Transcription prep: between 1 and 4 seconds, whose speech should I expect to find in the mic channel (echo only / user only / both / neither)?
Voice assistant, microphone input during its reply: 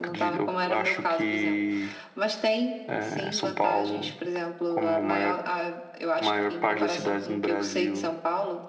both